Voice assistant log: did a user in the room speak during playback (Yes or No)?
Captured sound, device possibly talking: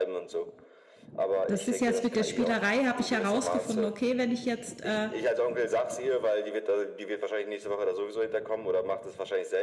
Yes